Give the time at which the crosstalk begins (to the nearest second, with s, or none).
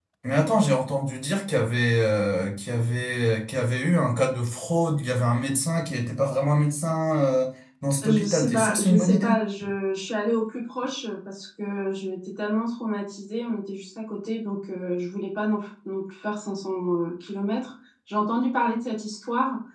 8 s